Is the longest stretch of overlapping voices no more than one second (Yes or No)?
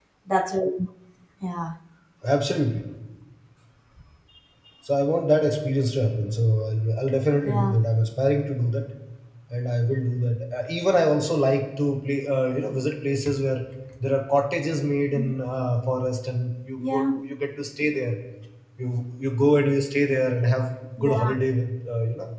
Yes